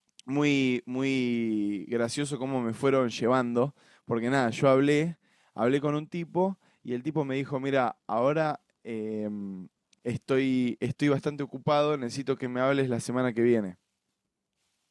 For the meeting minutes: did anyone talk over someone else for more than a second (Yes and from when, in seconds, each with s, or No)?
No